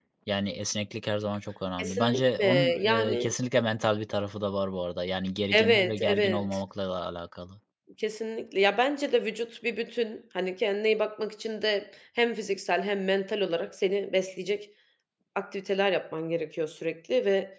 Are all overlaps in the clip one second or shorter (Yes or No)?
No